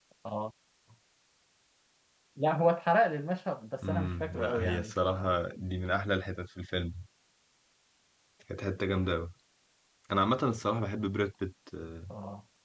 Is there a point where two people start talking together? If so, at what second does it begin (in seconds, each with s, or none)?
3.8 s